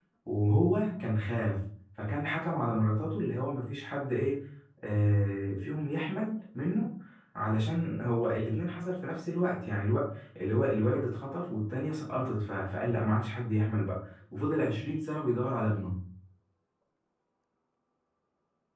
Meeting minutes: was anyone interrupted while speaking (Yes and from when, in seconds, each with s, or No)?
No